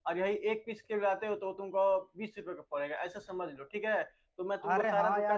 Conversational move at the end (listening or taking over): taking over